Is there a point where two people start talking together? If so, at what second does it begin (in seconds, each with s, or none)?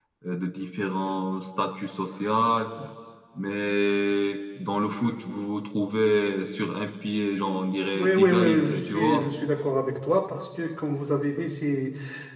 7.9 s